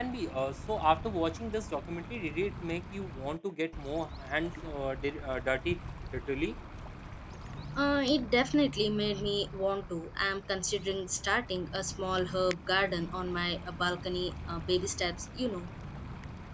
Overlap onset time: none

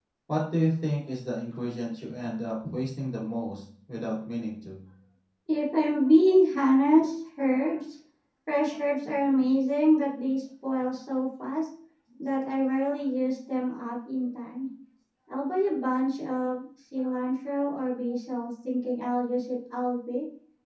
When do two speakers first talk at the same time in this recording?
none

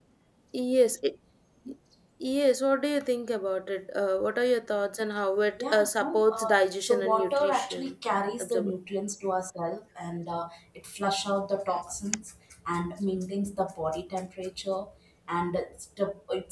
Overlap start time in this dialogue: 6 s

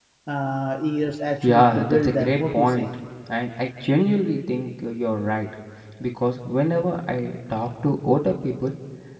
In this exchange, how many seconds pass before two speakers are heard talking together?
1 s

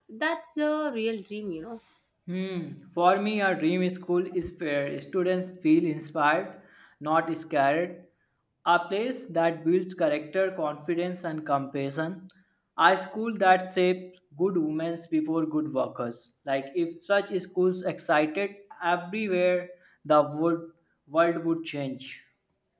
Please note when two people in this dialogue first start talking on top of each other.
none

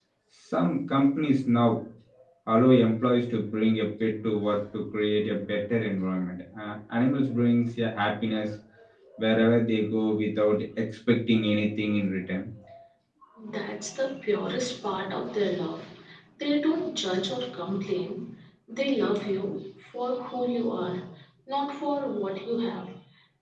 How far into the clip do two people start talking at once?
none

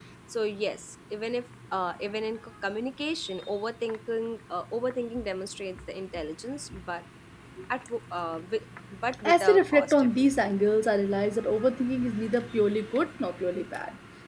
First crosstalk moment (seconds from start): 9 s

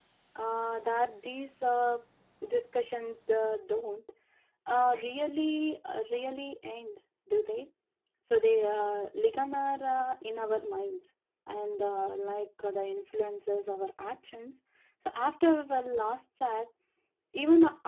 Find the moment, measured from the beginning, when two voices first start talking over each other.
none

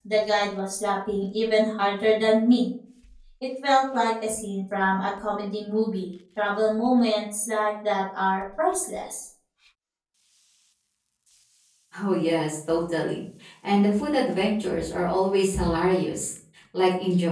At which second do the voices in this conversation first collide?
none

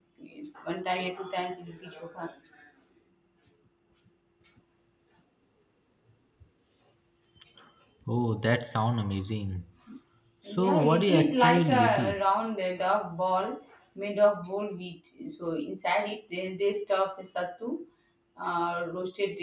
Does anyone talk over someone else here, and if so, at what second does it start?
10 s

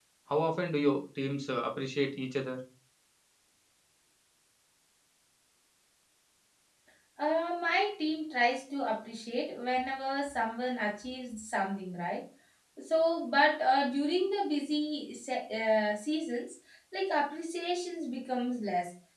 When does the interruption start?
none

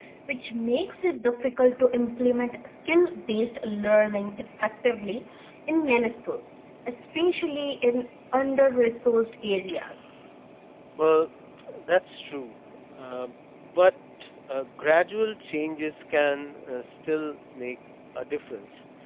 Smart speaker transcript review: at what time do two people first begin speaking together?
none

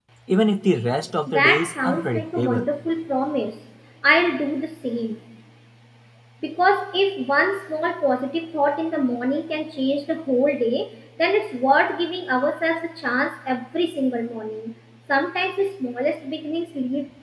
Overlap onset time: 1 s

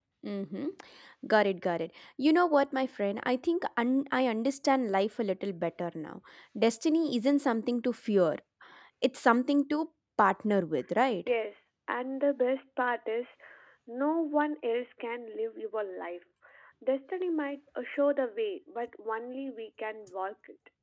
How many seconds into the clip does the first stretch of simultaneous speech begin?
none

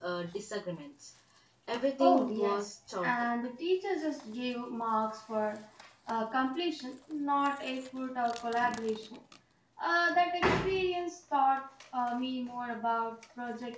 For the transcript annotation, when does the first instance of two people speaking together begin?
2 s

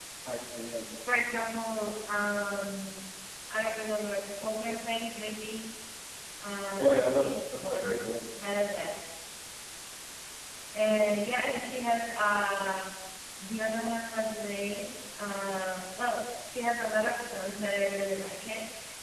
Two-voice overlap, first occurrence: 7 s

